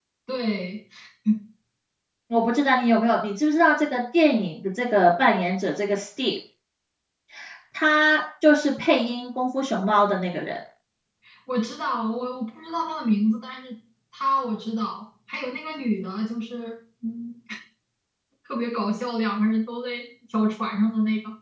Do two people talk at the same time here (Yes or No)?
No